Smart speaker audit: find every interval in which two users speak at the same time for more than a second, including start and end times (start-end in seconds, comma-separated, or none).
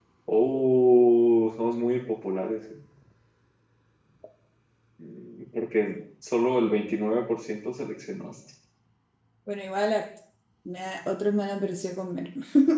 none